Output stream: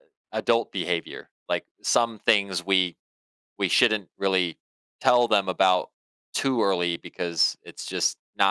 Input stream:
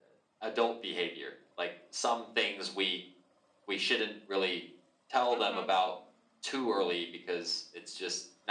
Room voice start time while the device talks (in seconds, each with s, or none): 5.3 s